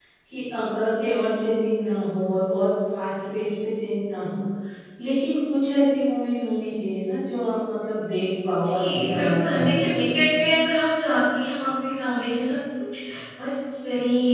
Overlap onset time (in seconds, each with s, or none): 8.6 s